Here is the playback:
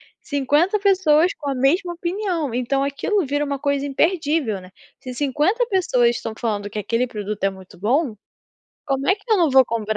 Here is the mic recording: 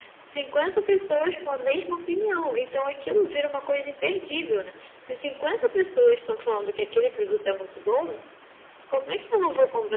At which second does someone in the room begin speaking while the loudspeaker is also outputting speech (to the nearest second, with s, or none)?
none